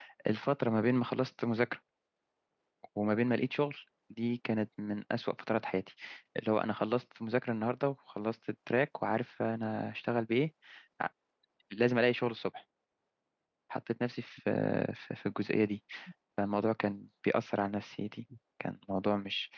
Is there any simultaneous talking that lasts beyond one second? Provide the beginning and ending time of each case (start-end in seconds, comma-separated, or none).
none